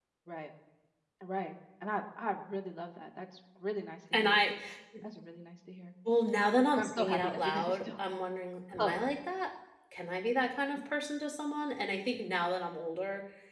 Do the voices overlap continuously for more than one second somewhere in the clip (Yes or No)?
Yes